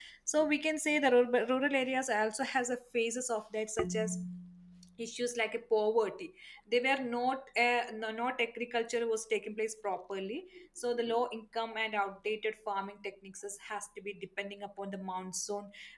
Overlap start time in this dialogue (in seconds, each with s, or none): none